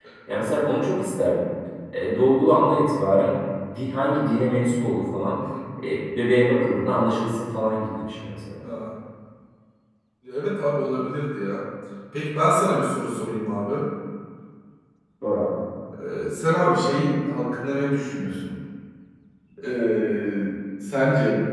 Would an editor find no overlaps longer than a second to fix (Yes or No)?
Yes